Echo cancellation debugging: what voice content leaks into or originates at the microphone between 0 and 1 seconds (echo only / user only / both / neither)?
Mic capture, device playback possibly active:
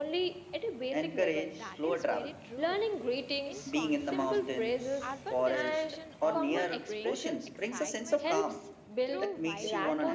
echo only